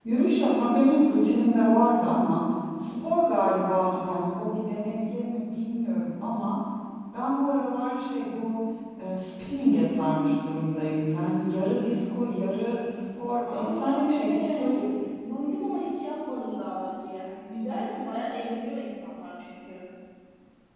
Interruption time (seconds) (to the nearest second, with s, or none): 13 s